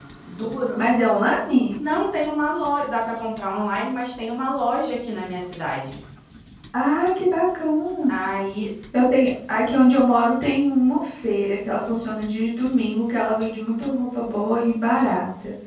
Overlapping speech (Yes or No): No